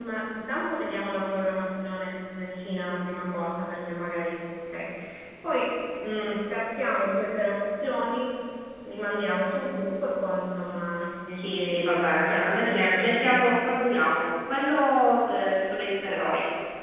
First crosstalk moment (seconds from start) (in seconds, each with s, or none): 11.4 s